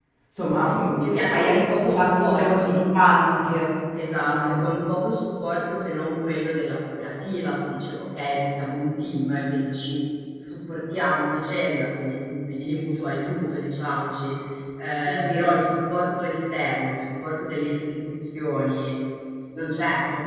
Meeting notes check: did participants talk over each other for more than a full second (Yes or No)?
Yes